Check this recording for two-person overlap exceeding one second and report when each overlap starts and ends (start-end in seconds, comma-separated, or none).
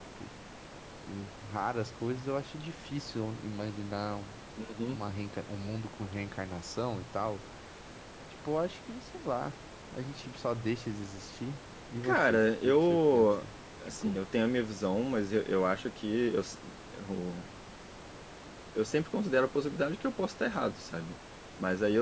12.0-13.4